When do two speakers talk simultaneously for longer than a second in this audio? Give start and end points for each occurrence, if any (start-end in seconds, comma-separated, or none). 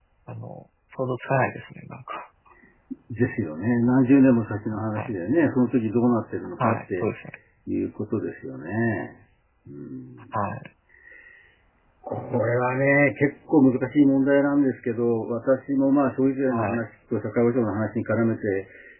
none